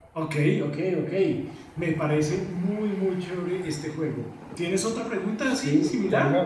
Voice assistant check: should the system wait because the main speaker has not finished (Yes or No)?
No